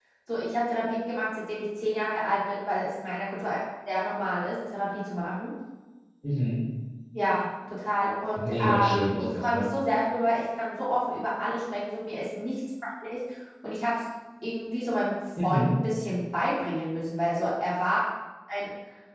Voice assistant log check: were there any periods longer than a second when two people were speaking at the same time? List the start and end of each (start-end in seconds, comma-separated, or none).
8.4-9.7